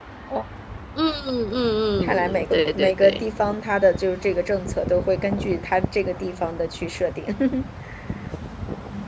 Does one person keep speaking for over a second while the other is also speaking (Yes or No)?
Yes